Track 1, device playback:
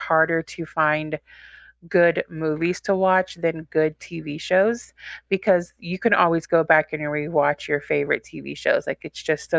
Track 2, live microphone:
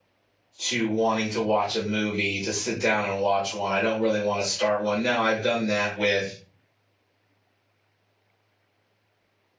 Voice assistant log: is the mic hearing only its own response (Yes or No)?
No